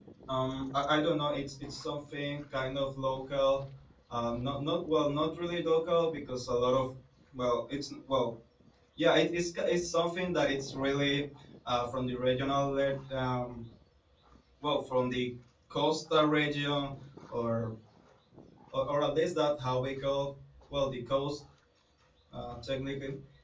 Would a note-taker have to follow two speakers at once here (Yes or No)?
No